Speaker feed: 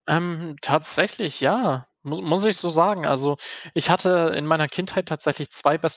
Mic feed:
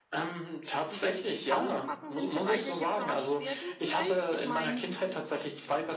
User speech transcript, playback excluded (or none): die dir nichts ausmachen, wenn sie weiter getratscht werden vielleicht. Ich meine,